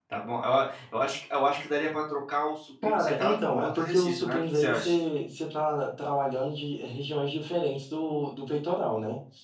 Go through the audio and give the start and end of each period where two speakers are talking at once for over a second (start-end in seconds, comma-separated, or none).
2.8-5.1